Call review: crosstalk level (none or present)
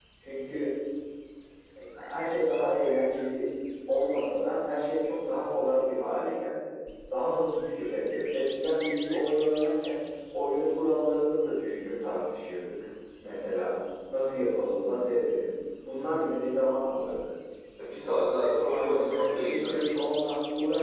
present